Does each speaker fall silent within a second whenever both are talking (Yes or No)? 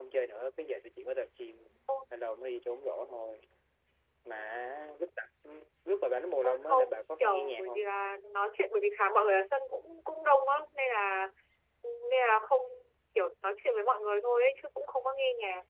No